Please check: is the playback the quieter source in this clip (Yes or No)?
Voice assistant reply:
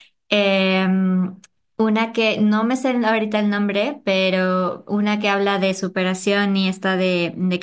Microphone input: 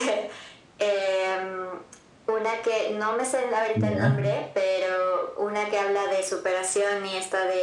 Yes